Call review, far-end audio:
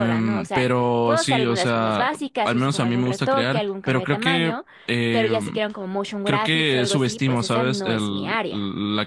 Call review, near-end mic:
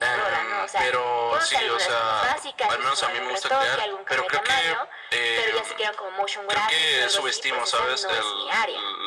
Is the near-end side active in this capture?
No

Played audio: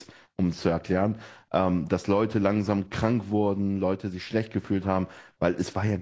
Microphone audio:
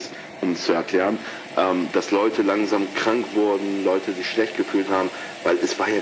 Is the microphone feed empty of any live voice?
Yes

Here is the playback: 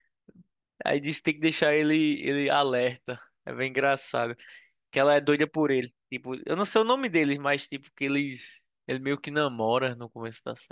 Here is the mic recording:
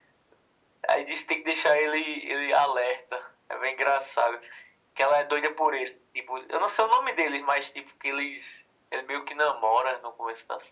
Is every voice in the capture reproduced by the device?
Yes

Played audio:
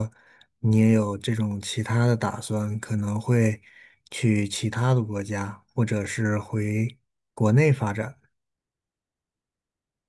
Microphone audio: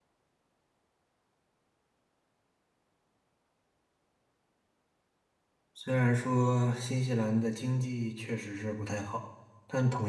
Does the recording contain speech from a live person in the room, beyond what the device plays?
Yes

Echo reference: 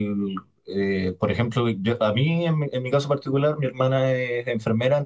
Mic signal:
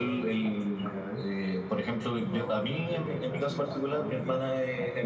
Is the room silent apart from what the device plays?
No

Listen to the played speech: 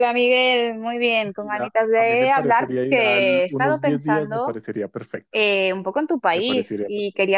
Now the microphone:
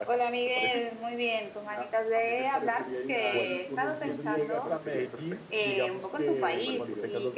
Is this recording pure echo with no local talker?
No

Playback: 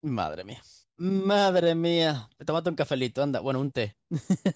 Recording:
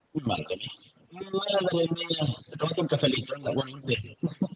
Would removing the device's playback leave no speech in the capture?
Yes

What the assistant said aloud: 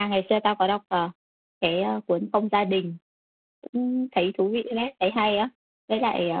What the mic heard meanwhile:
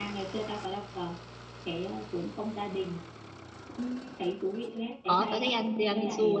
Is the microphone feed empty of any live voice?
No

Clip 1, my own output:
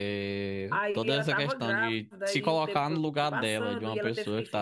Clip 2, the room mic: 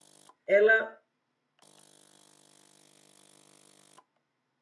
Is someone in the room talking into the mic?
Yes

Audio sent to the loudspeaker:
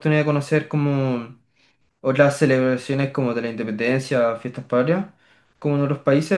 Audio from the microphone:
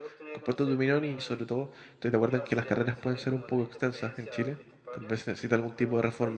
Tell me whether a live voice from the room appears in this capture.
Yes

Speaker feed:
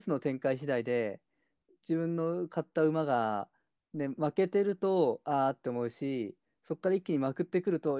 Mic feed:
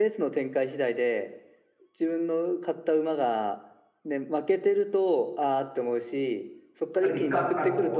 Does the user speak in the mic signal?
Yes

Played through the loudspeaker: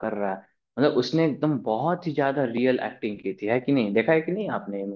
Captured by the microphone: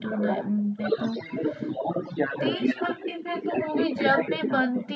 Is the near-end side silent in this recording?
No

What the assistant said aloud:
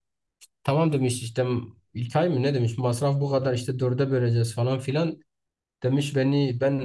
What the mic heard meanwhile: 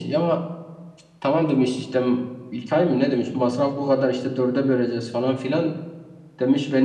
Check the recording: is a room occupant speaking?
No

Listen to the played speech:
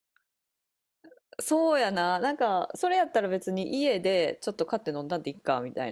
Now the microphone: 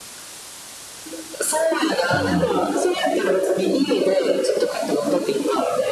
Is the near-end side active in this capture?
Yes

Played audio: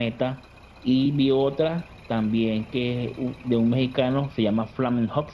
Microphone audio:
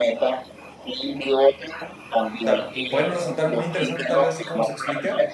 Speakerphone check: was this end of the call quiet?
No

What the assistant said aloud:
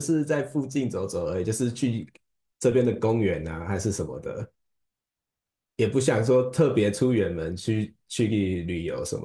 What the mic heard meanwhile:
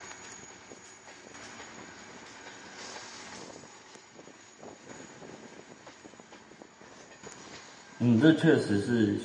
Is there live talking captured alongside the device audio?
Yes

